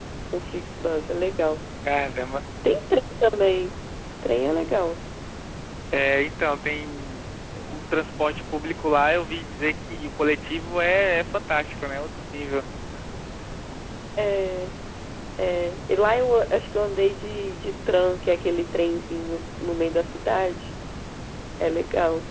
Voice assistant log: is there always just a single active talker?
Yes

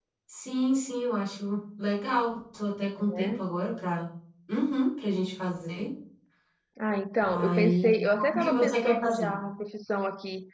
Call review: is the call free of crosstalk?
No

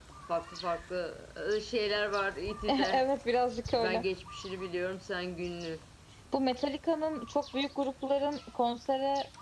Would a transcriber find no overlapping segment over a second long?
Yes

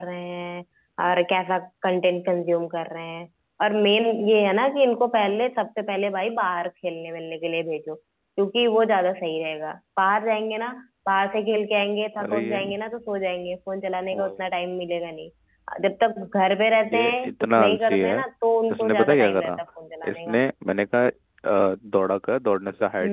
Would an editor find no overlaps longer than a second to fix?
No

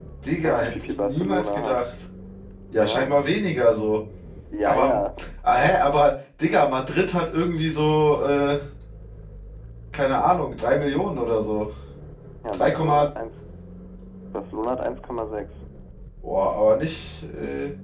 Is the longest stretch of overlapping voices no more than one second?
No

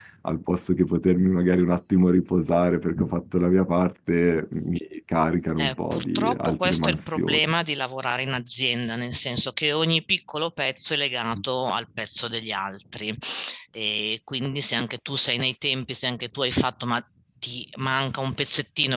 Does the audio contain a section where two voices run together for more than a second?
Yes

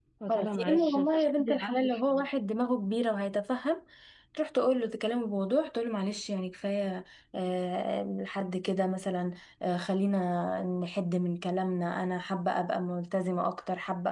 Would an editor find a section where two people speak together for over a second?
Yes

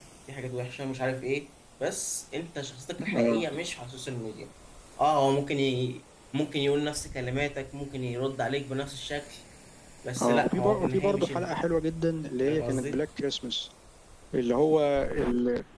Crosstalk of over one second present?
Yes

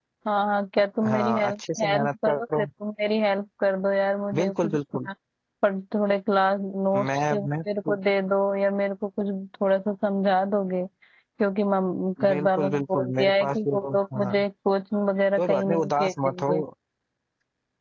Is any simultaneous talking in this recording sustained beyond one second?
Yes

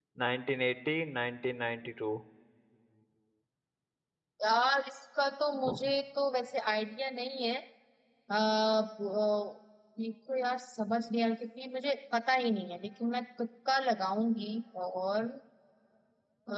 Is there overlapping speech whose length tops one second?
No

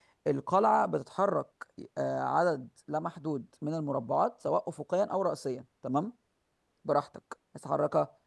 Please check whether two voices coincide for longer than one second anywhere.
No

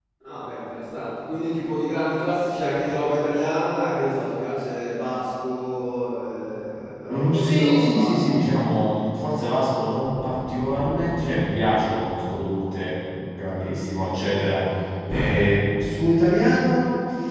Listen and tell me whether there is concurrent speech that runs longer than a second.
Yes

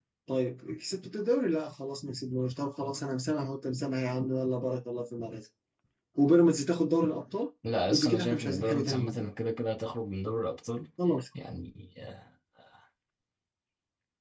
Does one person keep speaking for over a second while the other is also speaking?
Yes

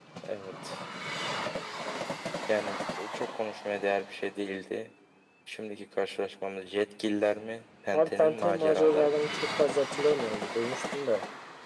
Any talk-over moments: Yes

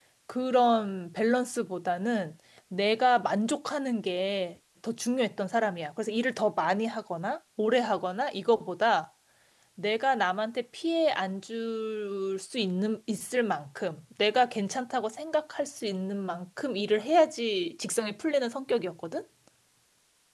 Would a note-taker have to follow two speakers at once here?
No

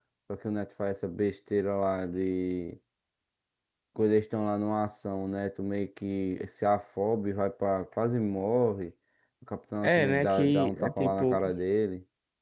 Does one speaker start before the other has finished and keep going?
Yes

